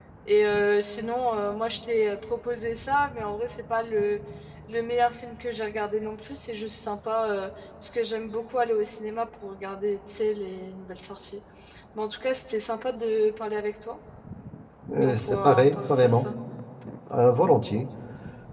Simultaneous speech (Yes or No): Yes